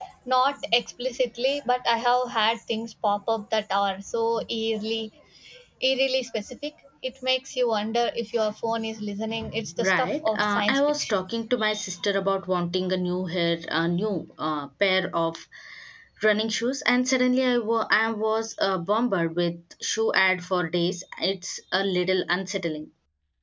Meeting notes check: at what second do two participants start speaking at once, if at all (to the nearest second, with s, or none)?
10 s